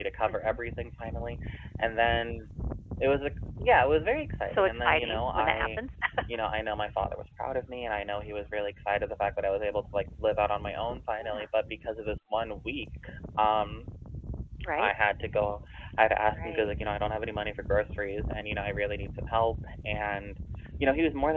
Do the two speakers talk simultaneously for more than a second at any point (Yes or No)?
Yes